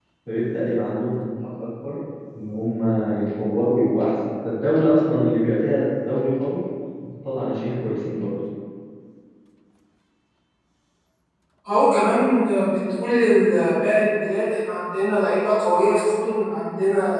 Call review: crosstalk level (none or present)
none